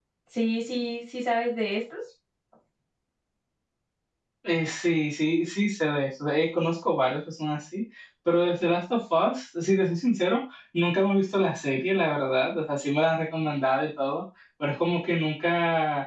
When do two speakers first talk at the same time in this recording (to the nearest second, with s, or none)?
none